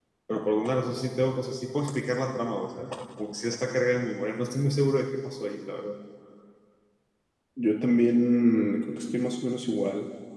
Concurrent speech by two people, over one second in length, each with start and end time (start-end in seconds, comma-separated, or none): none